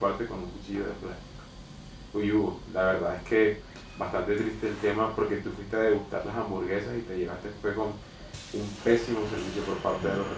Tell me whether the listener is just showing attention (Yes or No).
Yes